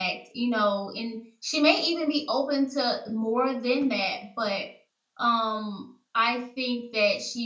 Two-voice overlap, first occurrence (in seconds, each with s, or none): none